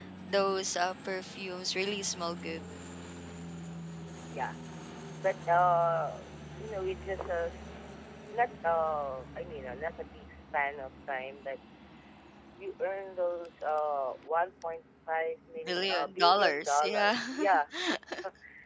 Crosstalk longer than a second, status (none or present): present